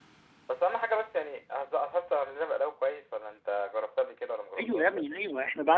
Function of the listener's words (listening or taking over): taking over